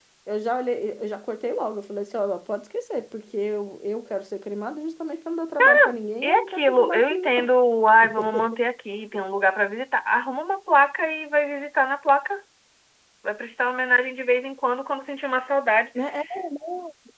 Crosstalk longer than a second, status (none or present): present